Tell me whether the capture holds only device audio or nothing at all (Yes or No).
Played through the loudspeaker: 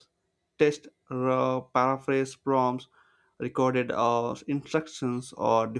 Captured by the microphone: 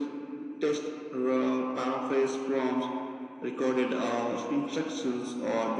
Yes